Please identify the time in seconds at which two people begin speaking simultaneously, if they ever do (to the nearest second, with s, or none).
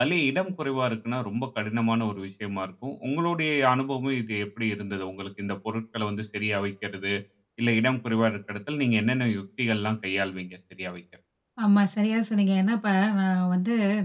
none